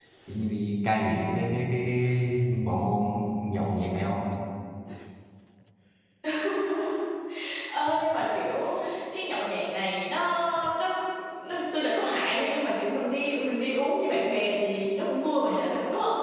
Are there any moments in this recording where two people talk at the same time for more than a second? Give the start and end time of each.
none

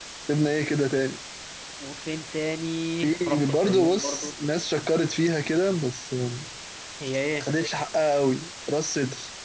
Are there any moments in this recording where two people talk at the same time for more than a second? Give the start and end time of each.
3.0-4.3

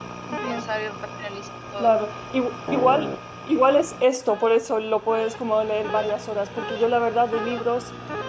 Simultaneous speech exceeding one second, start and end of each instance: none

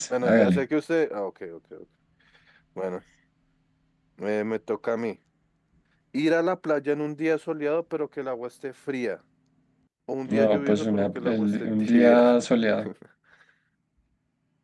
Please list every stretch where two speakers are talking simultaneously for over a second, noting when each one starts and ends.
10.3-12.2

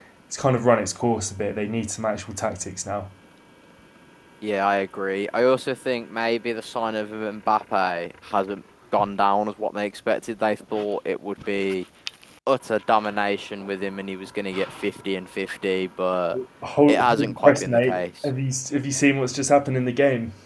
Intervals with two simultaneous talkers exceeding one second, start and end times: 16.9-18.3

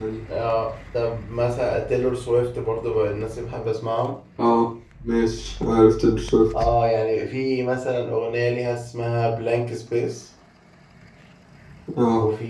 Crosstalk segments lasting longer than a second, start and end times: none

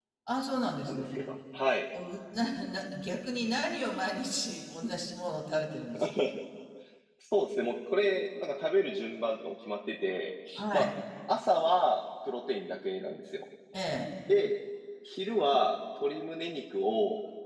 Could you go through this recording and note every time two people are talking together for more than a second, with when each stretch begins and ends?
none

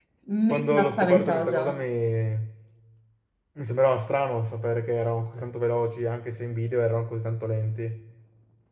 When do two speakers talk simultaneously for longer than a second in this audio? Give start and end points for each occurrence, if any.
0.5-1.8

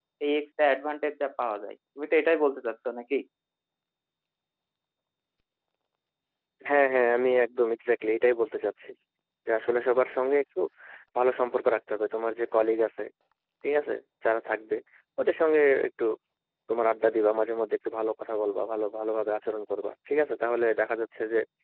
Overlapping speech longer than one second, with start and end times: none

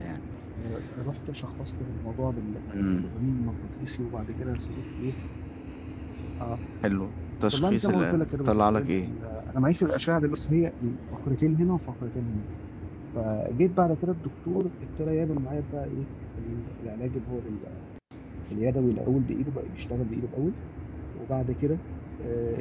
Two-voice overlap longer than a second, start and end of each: 7.5-9.1

